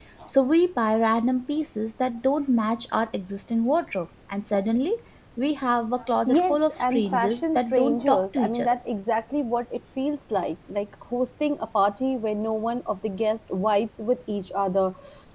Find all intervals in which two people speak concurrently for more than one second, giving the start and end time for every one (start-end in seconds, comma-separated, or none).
6.3-8.7